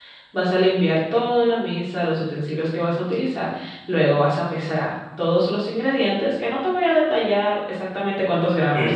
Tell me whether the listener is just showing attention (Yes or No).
No